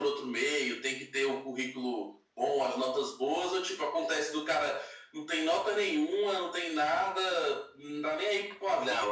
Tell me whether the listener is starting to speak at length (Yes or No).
Yes